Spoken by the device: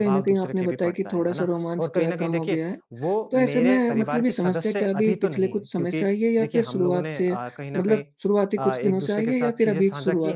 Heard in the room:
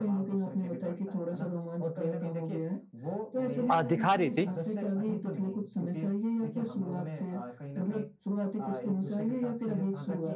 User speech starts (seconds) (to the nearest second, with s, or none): 4 s